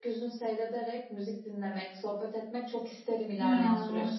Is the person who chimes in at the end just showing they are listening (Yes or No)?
No